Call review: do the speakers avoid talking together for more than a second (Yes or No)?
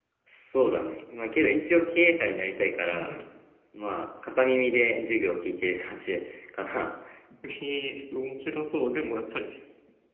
Yes